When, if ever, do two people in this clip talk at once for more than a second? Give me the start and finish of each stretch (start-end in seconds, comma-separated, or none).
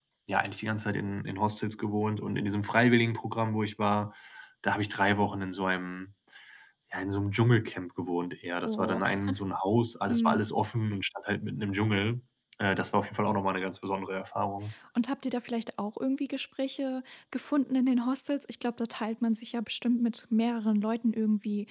none